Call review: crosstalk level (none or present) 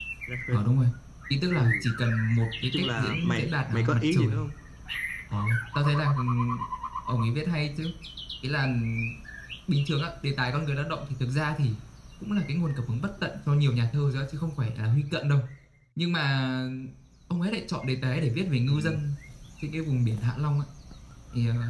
present